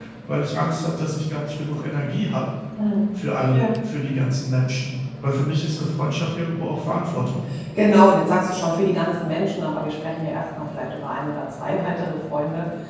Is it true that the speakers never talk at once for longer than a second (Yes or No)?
Yes